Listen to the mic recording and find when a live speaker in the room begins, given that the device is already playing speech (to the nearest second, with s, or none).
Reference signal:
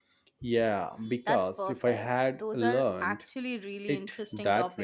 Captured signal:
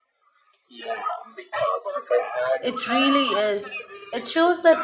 3 s